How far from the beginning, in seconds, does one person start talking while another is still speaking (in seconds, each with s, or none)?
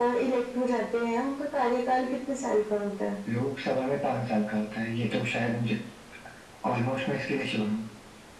none